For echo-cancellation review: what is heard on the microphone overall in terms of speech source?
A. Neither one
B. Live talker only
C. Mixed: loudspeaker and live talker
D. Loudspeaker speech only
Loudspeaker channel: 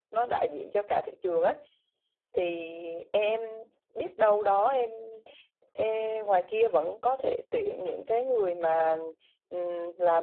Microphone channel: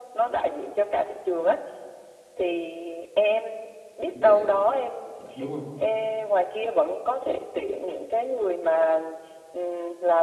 C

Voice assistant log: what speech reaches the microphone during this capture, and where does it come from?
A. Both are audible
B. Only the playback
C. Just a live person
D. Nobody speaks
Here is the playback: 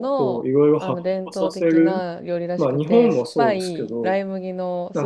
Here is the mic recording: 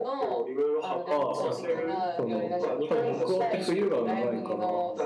A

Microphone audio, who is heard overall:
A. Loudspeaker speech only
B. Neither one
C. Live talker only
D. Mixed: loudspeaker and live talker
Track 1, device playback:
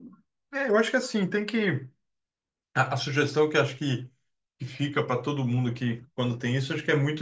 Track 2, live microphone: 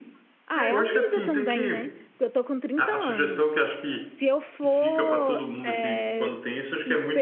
D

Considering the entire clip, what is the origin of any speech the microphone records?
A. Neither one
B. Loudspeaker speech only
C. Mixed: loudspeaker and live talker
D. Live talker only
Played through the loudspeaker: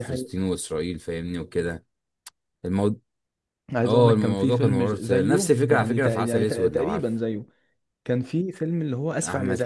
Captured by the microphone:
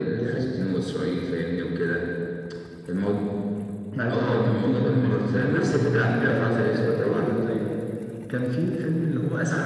B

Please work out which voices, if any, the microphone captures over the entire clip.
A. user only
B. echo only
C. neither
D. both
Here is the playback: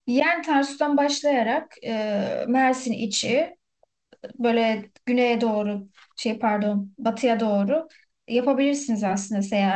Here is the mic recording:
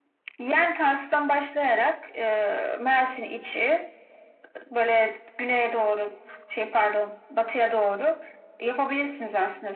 B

